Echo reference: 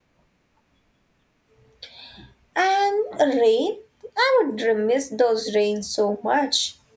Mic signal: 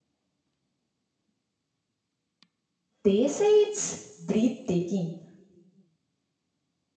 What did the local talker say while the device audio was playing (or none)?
they say it's breathtaking.